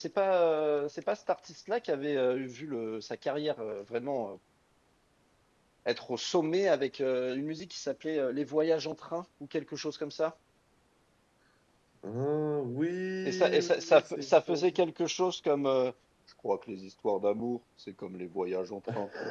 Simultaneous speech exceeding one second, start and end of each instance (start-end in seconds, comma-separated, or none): 13.2-14.7